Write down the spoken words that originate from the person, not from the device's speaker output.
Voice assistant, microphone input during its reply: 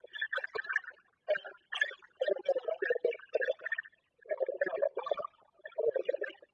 none

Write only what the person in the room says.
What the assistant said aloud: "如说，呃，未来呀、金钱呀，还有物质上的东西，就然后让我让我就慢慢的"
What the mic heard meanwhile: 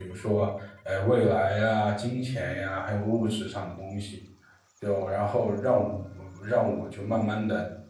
none

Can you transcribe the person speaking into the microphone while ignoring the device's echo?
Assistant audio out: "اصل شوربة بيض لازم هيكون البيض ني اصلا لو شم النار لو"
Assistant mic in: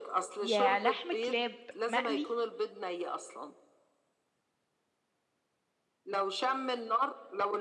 يا لحم كلاب مقلي

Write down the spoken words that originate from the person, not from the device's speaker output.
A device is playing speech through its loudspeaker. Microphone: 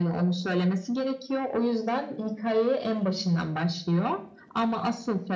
none

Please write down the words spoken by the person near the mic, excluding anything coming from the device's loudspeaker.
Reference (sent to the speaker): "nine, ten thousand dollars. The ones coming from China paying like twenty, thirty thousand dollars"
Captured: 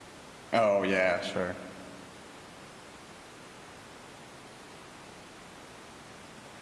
Oh, yeah, sure.

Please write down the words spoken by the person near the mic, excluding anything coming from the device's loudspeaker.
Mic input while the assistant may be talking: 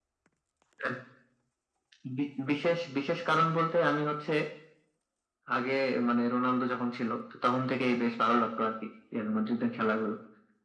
none

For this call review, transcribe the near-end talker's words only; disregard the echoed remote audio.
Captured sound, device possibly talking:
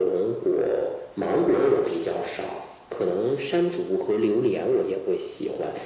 none

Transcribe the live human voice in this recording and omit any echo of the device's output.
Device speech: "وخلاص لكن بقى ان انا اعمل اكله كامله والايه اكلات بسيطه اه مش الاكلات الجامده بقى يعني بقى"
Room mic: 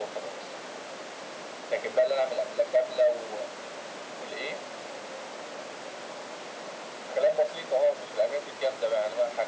none

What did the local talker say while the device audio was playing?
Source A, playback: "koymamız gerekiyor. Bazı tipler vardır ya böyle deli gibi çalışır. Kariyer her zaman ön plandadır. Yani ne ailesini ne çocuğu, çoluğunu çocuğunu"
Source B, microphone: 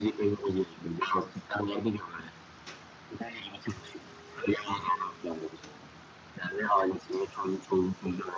none

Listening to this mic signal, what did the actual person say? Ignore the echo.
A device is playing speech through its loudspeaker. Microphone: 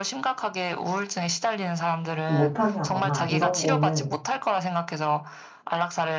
좀 못하게 하거나 이런 거는

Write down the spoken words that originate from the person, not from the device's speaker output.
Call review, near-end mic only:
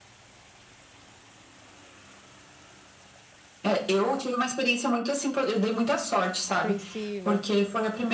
Apreensiva.

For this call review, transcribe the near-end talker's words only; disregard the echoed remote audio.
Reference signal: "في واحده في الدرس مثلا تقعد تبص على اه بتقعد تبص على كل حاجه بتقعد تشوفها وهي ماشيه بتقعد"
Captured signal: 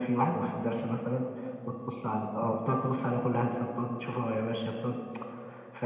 none

